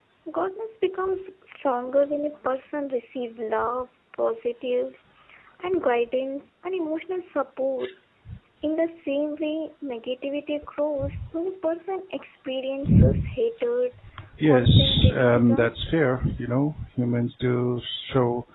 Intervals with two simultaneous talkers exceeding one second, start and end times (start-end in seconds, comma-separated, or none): 14.4-15.8